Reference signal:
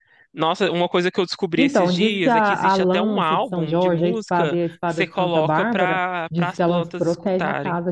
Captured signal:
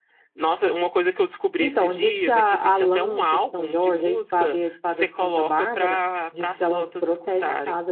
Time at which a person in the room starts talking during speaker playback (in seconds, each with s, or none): none